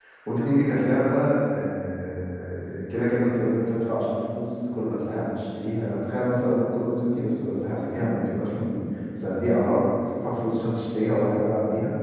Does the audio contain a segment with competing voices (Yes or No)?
No